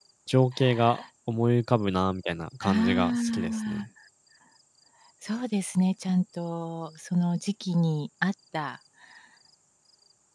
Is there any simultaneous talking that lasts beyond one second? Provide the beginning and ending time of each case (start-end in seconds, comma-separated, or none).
2.6-3.8